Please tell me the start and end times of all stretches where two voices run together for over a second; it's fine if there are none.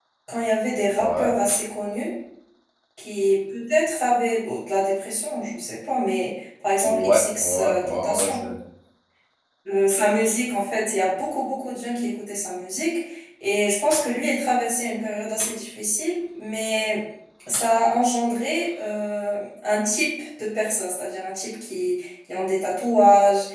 6.8-8.4

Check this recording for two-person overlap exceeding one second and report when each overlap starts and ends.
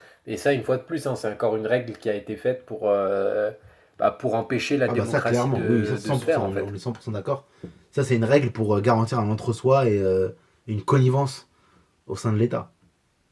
4.9-6.7

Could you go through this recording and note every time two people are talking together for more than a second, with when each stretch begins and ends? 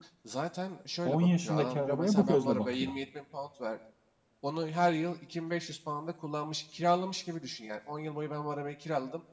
1.0-2.9

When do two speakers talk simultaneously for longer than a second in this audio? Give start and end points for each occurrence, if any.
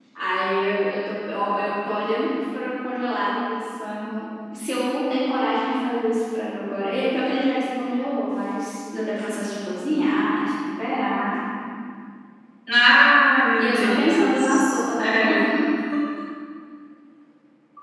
13.6-15.4

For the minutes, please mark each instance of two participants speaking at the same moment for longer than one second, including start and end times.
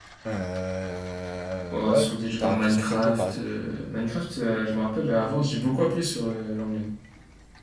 1.7-3.5

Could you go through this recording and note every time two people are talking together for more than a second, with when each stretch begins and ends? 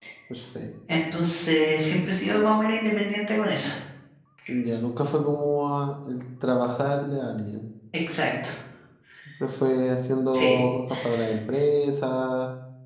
none

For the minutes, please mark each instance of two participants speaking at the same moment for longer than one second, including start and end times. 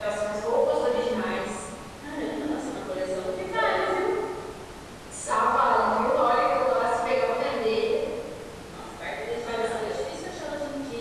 none

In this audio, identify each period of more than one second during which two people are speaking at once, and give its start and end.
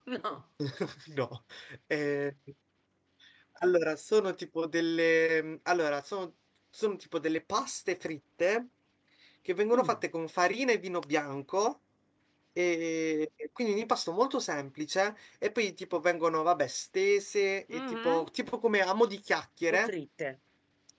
none

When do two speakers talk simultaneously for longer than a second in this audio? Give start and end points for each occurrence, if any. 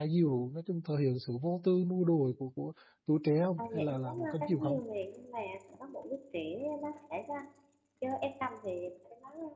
3.6-4.8

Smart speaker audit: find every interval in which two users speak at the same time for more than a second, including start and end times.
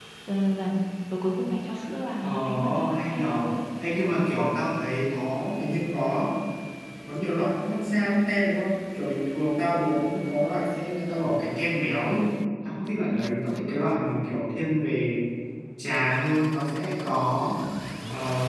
2.2-3.6

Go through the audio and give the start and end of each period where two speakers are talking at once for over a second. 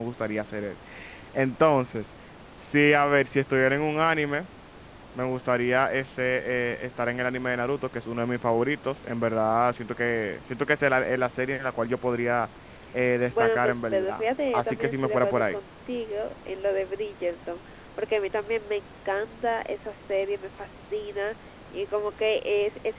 13.3-15.6

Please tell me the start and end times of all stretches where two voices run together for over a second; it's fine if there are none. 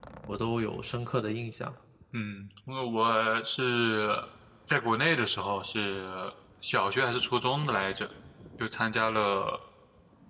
none

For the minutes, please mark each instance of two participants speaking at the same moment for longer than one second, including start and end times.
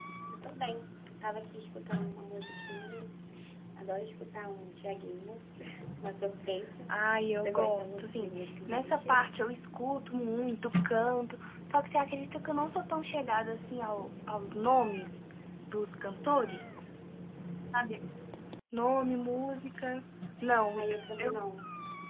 7.3-9.3

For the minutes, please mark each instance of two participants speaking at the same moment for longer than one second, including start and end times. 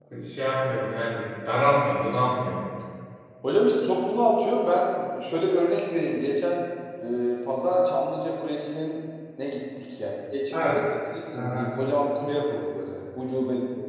none

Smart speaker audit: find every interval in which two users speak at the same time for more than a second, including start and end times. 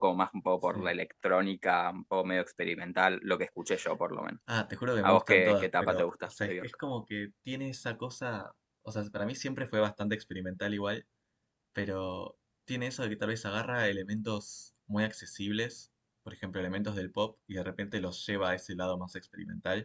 5.0-6.6

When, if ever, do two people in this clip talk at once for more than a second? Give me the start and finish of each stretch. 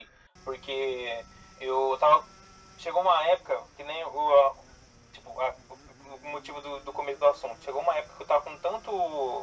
none

